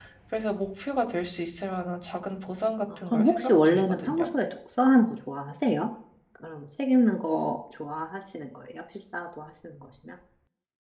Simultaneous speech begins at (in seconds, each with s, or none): 3.1 s